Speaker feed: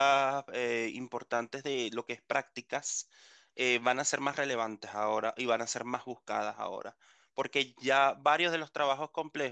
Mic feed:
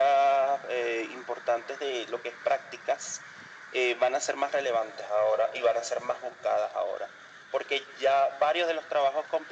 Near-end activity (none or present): none